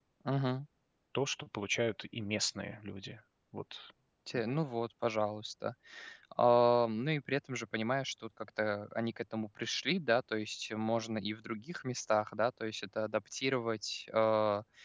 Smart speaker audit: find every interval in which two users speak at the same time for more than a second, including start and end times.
none

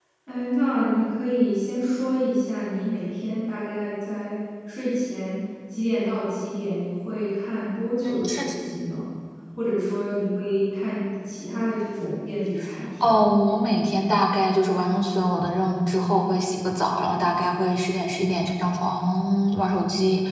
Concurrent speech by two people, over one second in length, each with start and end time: none

